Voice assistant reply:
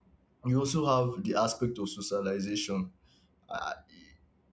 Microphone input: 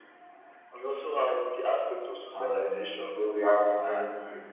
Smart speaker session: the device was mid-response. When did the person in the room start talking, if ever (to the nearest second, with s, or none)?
2 s